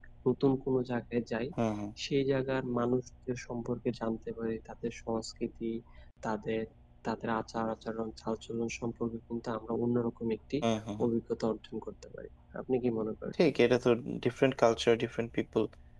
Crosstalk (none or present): none